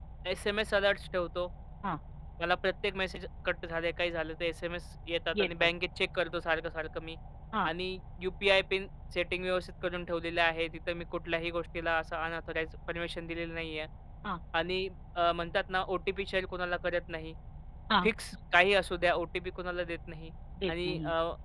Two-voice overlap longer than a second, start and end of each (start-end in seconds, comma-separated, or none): none